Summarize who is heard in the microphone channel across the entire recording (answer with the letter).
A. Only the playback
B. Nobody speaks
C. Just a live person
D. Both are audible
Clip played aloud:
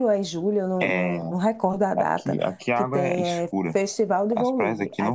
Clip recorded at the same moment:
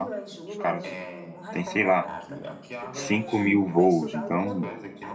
D